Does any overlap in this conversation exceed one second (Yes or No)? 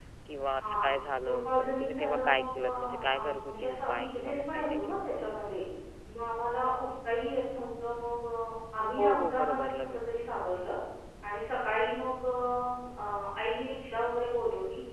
Yes